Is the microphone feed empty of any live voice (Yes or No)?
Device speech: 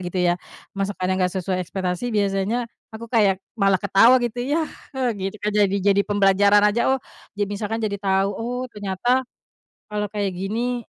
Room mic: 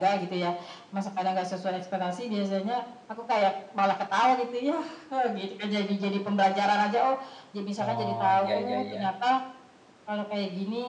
No